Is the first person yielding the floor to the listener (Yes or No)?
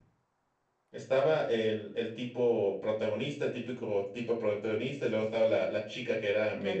No